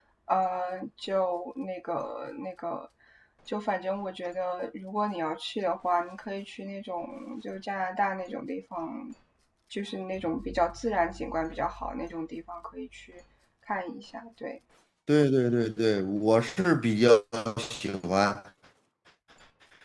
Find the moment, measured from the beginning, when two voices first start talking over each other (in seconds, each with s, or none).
none